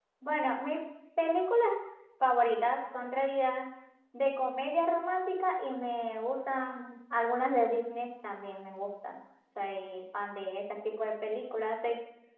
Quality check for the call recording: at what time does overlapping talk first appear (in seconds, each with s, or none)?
none